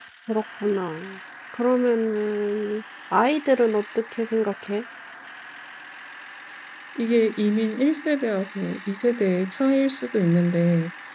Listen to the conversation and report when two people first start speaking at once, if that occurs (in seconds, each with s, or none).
none